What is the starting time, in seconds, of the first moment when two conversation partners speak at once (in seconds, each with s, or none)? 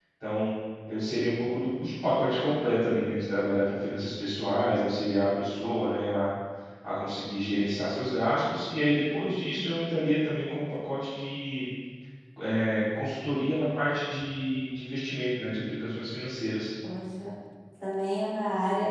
none